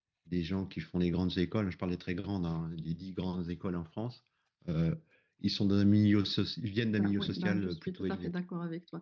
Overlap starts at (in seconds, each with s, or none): 6.9 s